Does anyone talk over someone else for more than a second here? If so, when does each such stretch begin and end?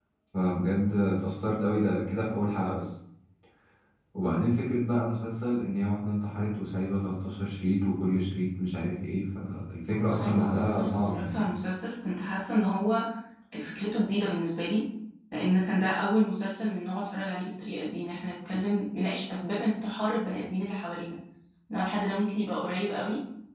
9.9-11.5

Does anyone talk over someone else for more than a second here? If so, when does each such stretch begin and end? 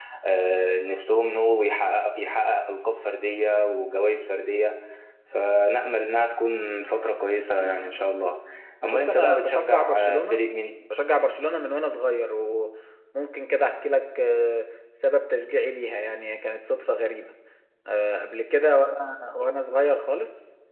8.9-10.4

